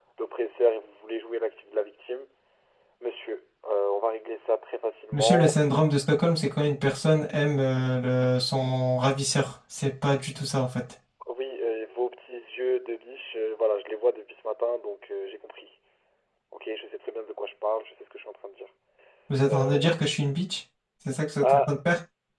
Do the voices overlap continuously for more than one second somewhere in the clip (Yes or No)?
No